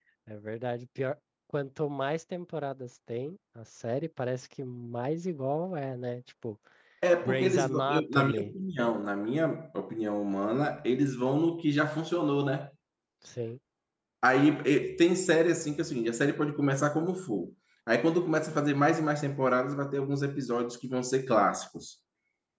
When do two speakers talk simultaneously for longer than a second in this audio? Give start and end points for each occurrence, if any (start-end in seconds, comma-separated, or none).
7.2-8.5